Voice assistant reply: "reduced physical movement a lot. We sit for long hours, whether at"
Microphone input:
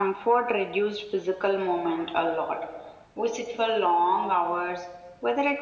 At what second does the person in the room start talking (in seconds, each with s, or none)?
none